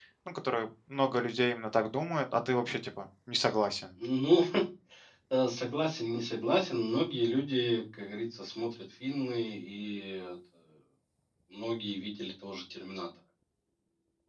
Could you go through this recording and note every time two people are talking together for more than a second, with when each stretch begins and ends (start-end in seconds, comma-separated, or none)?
none